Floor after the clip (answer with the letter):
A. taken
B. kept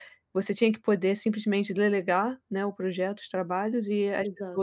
B